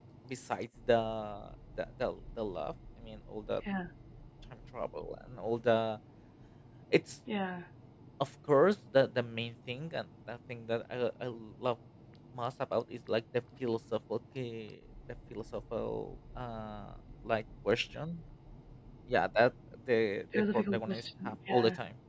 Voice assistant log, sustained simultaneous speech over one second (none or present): present